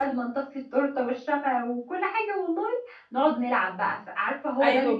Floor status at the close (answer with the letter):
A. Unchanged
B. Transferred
B